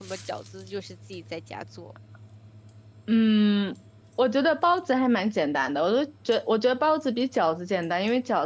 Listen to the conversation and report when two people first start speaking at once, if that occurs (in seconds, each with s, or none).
none